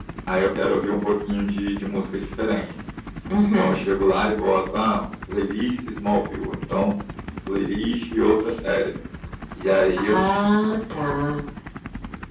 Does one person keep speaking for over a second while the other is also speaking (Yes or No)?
No